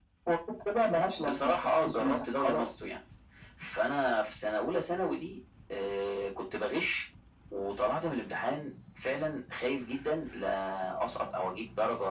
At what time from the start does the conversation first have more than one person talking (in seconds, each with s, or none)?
1.2 s